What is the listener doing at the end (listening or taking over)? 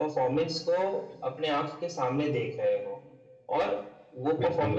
listening